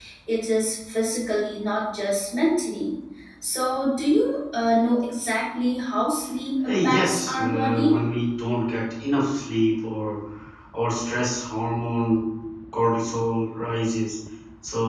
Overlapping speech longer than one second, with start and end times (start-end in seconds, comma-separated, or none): 6.7-8.0